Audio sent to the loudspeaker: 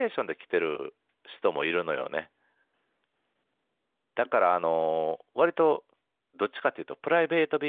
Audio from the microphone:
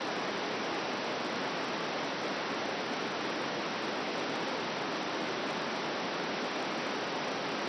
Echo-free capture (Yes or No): Yes